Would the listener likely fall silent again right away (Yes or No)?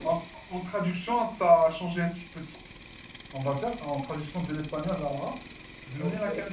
Yes